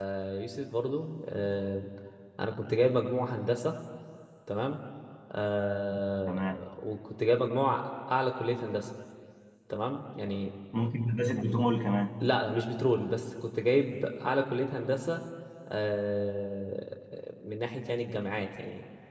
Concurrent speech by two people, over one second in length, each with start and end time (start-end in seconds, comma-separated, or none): none